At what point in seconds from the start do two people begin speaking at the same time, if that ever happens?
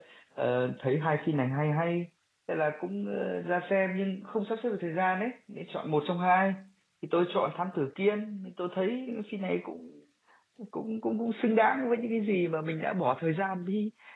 none

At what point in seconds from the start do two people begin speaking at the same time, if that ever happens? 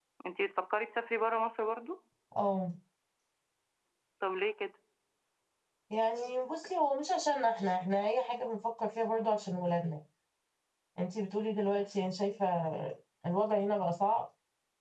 none

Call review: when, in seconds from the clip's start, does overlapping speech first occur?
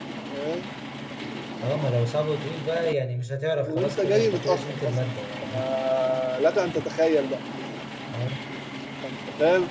3.6 s

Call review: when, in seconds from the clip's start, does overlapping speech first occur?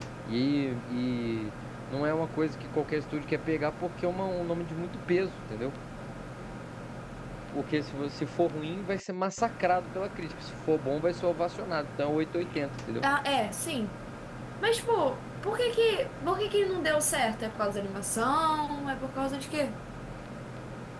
none

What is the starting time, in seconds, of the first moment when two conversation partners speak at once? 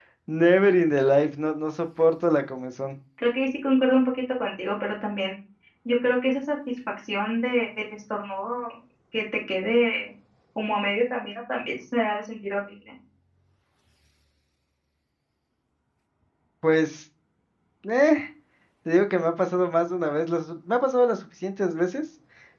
none

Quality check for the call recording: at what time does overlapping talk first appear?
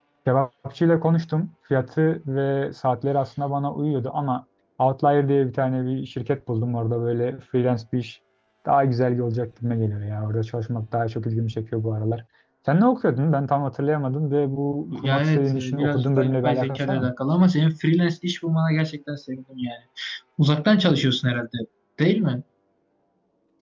14.9 s

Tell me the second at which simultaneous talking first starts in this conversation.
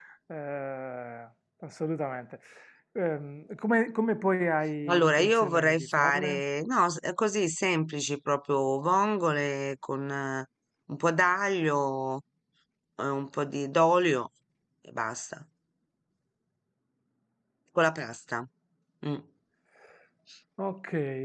4.9 s

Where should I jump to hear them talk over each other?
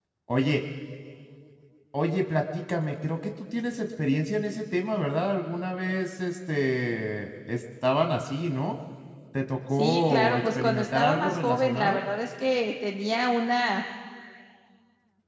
9.8 s

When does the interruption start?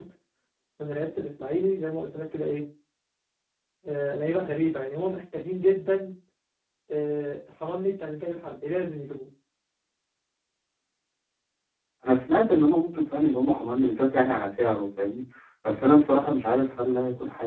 none

